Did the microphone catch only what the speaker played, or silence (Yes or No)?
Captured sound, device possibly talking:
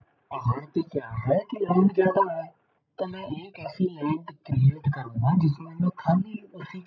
Yes